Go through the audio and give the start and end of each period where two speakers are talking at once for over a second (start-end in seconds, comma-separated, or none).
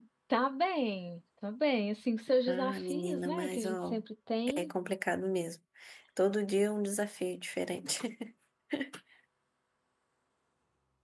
2.5-4.0